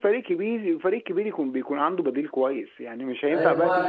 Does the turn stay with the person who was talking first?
No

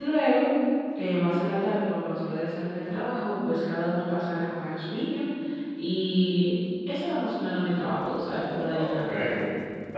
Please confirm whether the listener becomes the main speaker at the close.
Yes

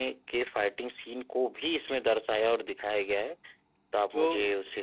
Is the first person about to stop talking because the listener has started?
Yes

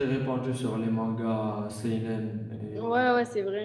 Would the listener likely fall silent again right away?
No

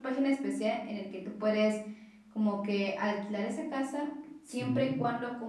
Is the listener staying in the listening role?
Yes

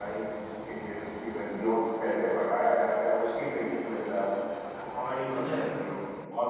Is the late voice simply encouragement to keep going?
Yes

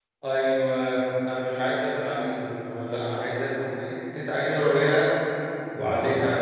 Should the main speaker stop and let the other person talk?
No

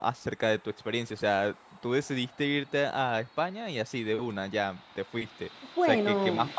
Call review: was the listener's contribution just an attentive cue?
Yes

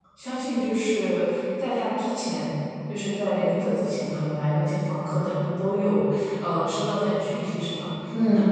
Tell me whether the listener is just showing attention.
Yes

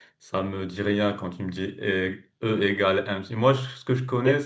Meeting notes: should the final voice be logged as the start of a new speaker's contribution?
No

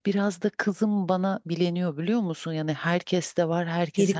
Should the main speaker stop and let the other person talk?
No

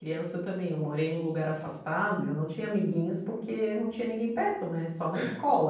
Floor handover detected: No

